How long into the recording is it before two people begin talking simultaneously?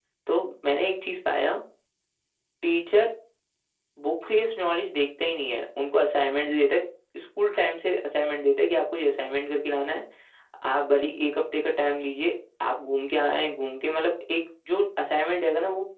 none

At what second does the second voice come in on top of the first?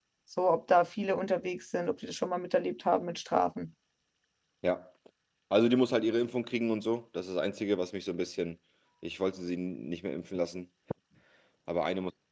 none

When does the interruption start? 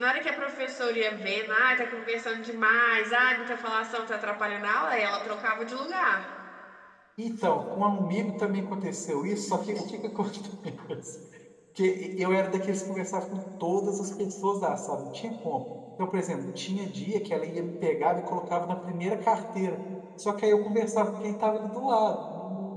none

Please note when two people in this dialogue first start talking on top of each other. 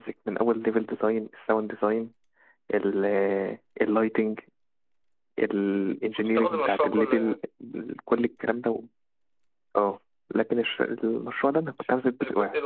6.2 s

